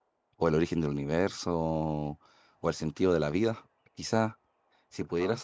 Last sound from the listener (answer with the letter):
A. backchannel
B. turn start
A